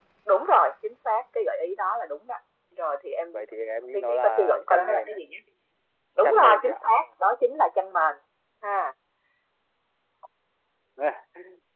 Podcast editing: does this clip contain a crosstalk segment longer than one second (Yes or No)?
Yes